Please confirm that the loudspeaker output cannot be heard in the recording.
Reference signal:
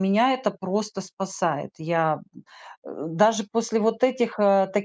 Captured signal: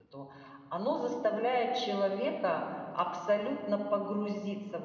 Yes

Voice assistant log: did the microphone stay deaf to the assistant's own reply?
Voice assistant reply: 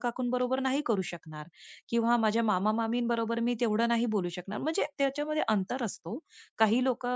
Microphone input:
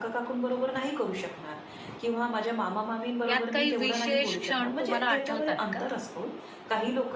No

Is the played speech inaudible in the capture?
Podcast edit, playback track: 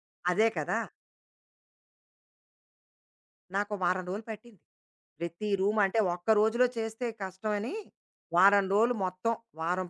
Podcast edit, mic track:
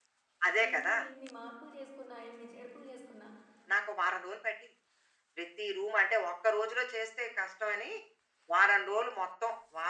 No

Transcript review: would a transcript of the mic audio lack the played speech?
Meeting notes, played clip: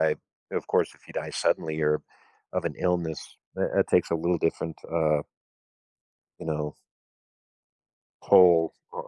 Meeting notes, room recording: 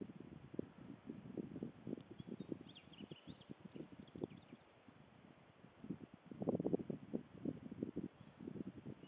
Yes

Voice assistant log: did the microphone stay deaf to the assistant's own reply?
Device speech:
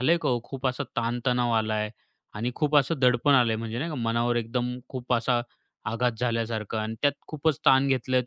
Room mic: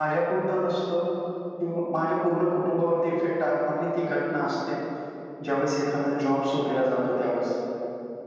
Yes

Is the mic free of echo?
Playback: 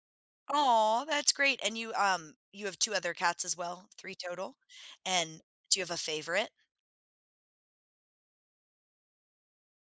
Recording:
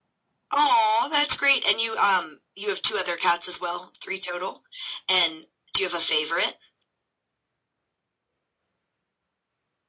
No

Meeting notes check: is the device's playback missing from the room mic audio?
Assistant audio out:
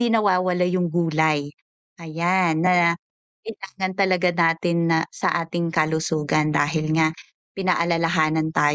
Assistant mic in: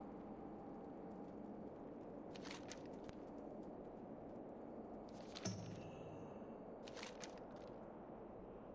Yes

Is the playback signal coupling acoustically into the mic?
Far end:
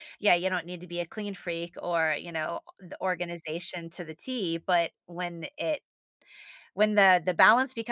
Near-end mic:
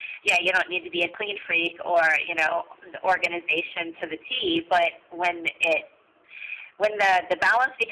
Yes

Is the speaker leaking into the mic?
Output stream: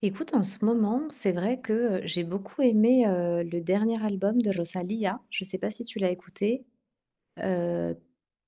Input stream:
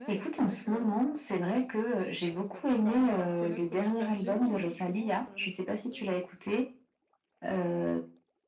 Yes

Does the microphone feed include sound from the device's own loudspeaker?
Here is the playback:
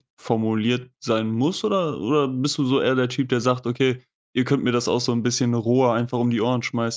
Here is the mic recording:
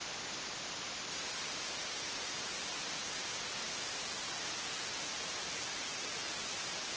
No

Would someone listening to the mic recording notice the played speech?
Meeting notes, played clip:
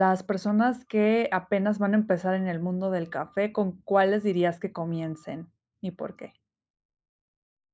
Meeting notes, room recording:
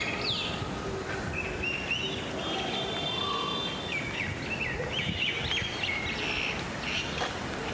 No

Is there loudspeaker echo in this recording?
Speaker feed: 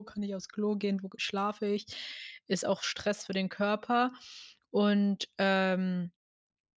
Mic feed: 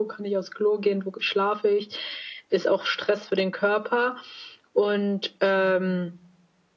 Yes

